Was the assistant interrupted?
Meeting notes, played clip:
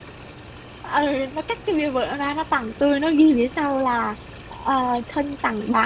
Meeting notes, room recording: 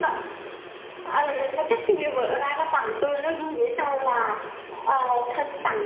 No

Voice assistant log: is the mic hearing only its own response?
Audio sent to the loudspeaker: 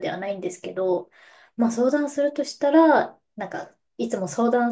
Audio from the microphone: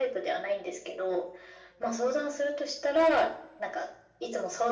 Yes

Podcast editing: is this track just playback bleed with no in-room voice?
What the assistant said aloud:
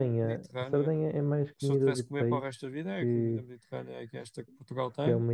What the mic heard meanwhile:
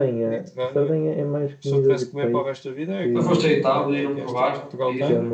No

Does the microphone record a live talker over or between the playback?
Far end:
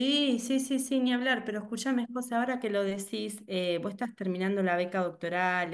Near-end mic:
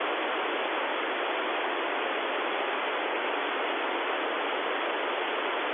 No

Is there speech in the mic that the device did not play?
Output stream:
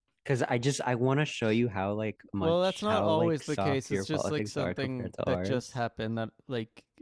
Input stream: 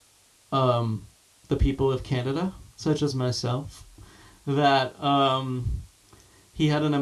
Yes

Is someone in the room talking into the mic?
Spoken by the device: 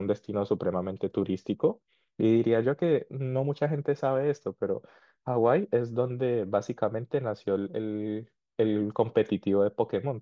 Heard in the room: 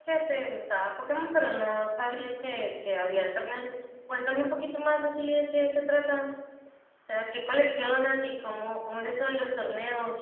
Yes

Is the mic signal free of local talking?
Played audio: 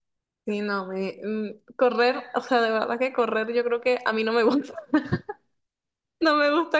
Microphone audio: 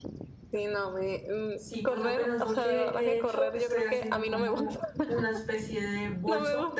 No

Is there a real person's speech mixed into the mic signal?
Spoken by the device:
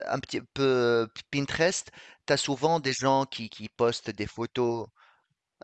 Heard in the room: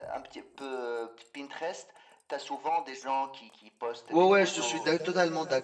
Yes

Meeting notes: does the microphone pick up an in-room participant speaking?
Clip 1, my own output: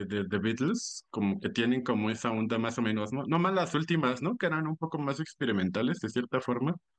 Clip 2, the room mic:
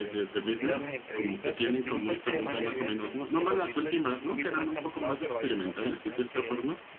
Yes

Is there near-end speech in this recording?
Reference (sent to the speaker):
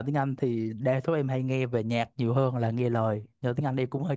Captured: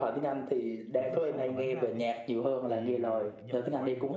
Yes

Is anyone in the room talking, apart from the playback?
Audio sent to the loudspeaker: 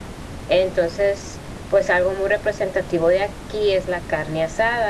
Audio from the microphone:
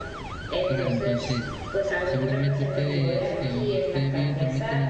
Yes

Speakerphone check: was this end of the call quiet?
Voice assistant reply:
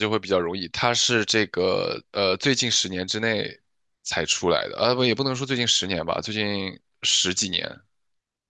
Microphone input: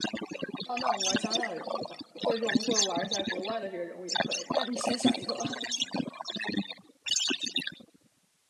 No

